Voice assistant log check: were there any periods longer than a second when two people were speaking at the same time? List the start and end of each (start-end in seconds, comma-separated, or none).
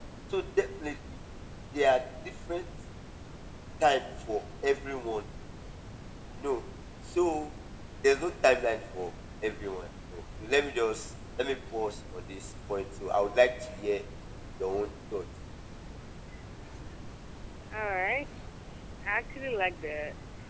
none